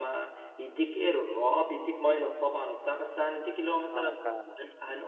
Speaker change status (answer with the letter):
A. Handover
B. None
B